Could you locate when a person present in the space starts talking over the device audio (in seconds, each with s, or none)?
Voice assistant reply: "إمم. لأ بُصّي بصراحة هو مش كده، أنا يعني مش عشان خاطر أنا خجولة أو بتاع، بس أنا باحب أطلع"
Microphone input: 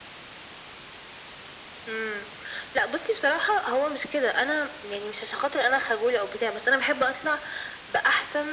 none